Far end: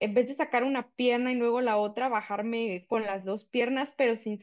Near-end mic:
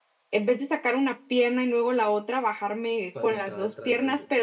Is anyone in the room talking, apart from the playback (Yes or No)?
Yes